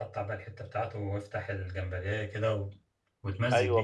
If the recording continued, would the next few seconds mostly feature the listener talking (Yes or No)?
Yes